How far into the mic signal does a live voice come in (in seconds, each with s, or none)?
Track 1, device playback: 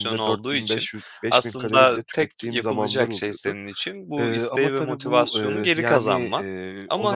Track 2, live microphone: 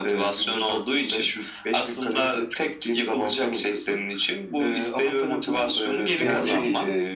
6.2 s